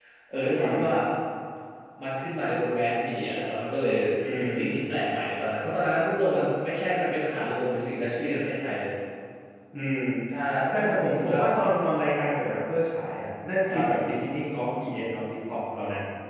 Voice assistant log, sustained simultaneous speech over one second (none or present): none